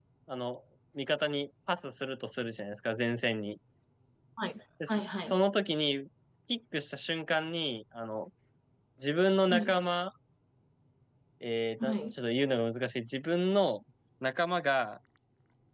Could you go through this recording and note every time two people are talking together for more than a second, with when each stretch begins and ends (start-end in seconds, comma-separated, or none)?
none